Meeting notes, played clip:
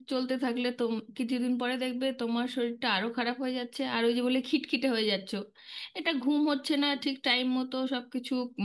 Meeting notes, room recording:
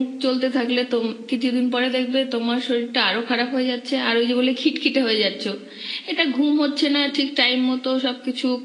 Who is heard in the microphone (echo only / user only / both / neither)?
echo only